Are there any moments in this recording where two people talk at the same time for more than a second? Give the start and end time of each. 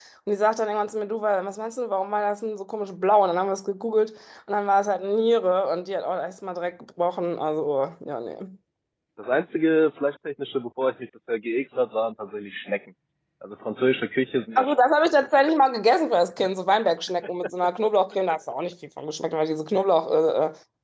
none

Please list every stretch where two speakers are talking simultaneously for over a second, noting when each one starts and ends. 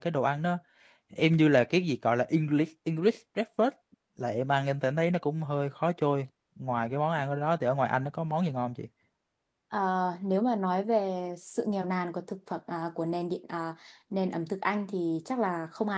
none

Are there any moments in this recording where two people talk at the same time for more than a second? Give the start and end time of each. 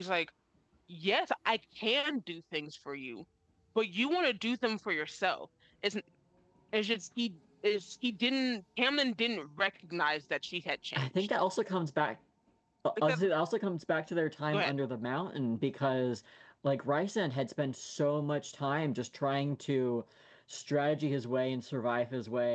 none

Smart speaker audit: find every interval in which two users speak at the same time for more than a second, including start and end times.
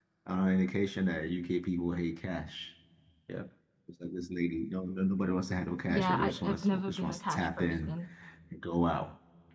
5.9-8.0

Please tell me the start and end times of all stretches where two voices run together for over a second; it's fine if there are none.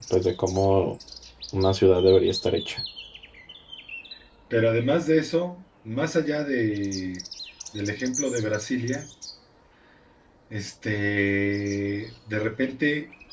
none

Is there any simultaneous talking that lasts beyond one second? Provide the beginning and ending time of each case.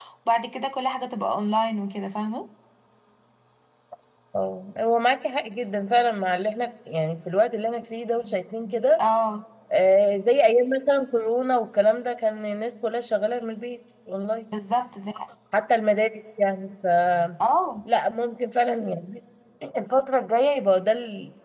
none

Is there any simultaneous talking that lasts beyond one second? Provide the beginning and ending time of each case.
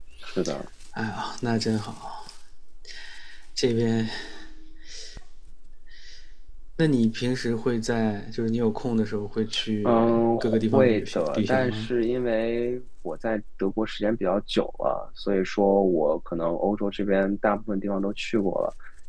9.8-11.9

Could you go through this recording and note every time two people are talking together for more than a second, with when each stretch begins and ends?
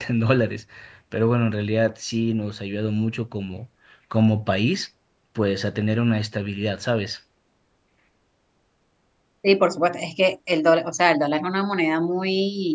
none

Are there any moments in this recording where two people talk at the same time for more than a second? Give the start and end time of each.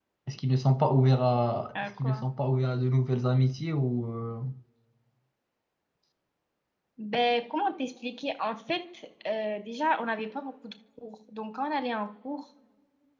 none

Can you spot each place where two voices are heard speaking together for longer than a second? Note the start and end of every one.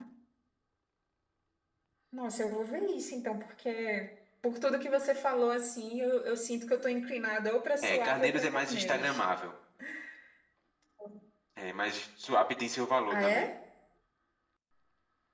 7.8-9.2

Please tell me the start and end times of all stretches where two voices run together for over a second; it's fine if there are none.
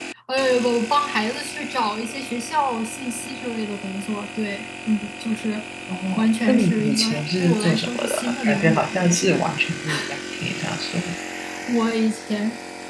6.2-8.8

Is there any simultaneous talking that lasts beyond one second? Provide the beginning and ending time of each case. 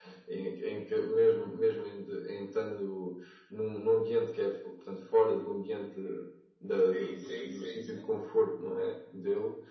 6.7-8.2

